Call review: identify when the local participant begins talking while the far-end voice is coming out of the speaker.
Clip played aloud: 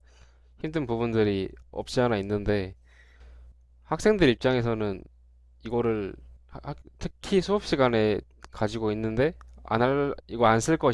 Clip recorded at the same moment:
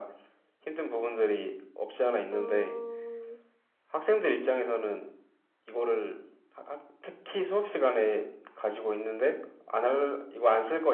2 s

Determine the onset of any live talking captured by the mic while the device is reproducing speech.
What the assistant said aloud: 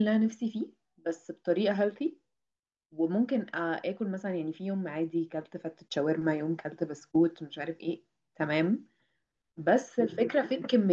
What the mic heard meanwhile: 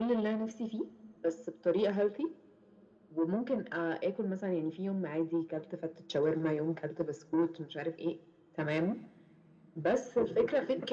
none

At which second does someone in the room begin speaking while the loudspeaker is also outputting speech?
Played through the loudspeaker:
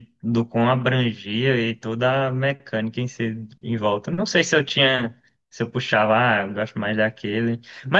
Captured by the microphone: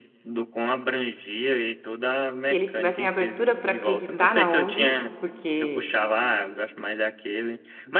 2 s

